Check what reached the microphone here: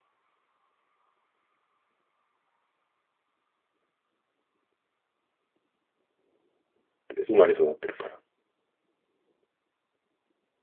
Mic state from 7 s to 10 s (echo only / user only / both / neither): user only